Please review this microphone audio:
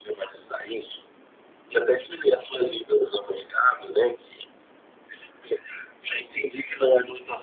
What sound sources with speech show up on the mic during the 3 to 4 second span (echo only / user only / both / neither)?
echo only